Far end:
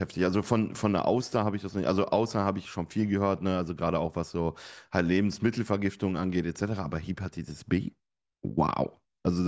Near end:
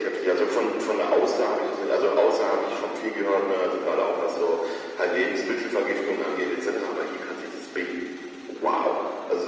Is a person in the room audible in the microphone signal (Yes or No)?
No